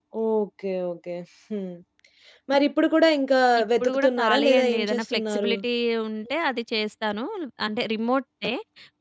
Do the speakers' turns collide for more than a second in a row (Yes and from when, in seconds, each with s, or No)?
Yes, from 3.6 s